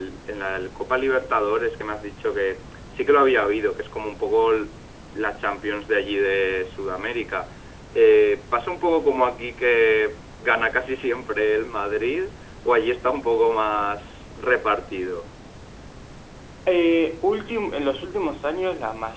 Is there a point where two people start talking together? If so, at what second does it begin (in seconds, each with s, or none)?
none